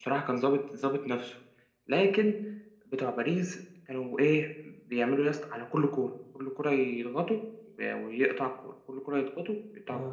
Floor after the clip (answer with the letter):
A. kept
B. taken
A